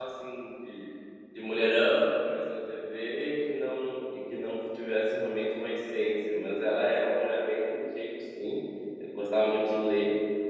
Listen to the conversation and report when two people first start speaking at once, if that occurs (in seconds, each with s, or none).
none